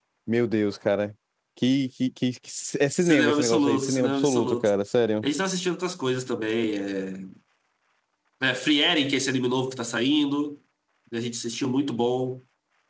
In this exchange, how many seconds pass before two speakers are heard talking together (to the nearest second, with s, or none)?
3 s